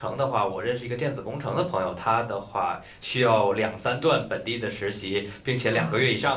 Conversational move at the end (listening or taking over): listening